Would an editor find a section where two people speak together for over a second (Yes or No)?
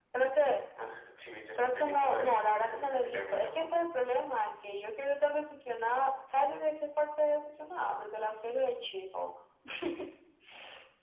Yes